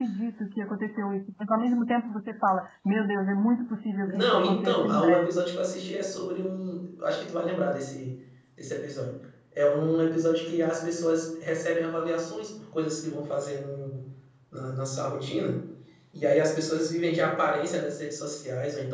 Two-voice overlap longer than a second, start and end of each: 4.0-5.5

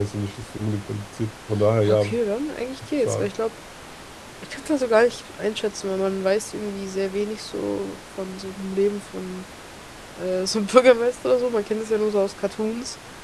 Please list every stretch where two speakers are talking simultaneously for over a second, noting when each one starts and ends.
none

